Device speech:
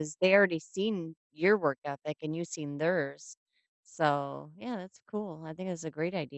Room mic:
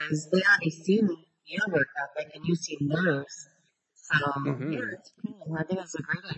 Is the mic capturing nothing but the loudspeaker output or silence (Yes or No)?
No